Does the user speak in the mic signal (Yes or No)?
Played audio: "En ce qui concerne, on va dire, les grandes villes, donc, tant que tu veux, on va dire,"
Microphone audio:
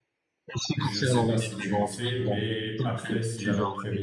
Yes